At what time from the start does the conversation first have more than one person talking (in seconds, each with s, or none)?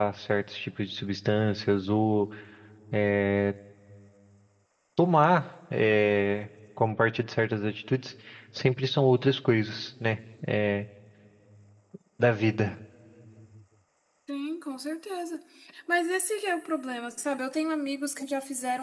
none